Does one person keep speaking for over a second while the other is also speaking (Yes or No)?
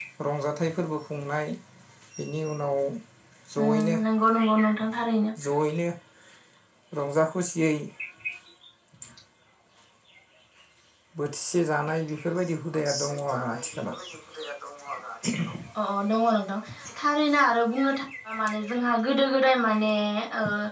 Yes